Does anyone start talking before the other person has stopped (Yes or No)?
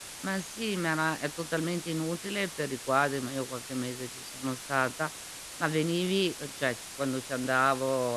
No